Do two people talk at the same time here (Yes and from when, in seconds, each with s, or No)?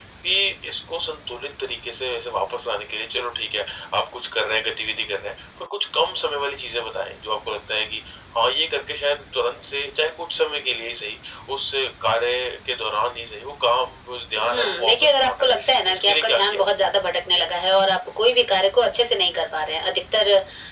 Yes, from 14.3 s